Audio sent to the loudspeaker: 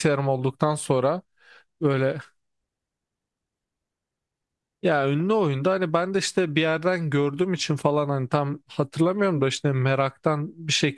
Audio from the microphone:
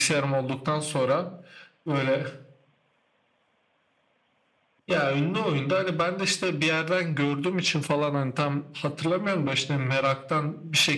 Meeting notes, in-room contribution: none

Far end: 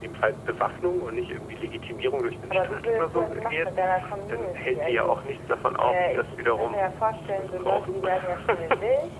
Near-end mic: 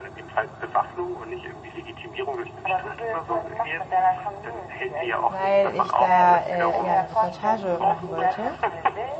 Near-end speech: present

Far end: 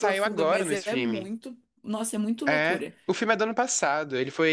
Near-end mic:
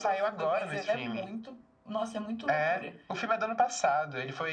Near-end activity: none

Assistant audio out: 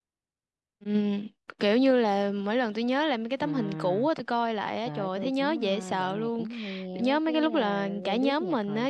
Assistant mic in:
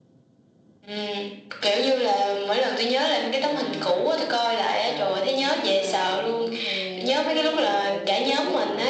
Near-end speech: none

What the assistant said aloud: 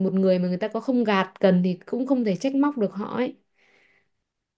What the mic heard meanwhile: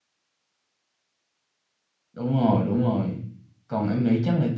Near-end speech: present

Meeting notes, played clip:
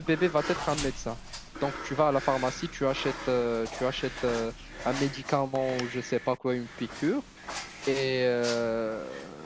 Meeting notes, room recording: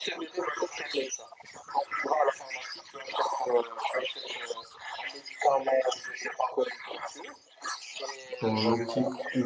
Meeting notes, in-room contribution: present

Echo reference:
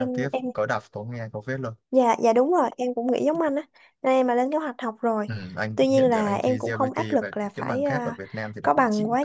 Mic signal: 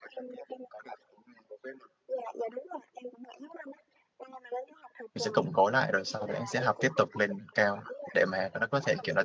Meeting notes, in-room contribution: present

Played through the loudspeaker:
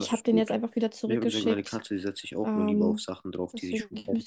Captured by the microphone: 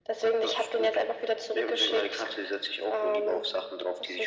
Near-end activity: none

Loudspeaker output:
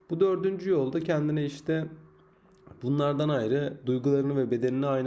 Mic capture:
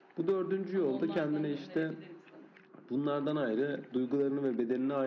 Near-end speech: present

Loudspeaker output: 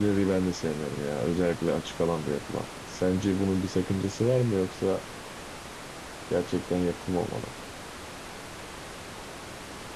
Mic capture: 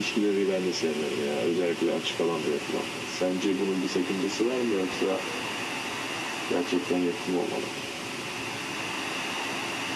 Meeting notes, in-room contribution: none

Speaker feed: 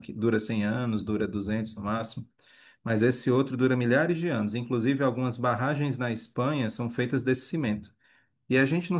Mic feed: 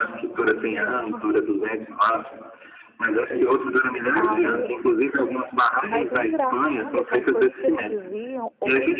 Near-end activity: present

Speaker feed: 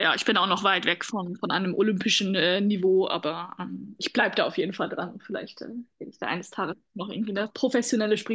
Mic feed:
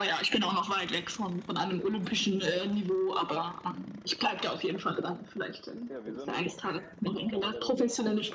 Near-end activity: present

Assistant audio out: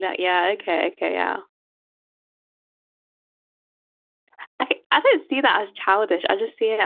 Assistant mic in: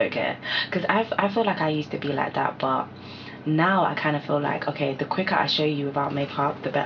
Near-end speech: present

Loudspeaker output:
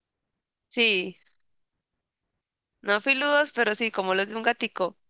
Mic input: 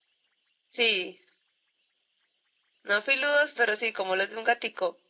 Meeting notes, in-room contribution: none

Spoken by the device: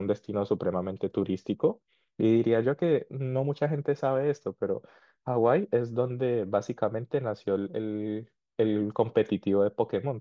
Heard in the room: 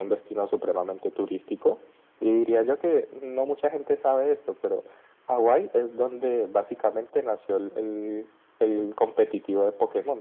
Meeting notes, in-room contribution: none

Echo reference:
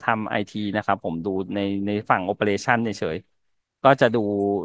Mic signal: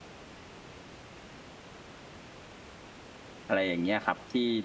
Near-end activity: present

